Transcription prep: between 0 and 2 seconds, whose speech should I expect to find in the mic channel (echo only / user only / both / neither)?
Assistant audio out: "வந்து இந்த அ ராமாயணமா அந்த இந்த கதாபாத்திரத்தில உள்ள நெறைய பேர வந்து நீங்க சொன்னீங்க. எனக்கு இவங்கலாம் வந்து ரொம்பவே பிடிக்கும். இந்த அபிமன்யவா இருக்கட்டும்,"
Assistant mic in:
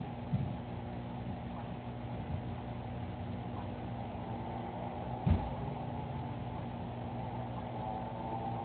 neither